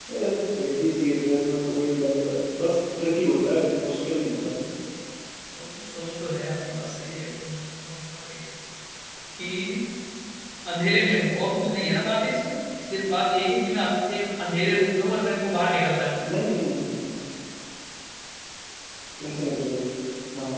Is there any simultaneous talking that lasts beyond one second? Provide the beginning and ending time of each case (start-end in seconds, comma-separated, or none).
none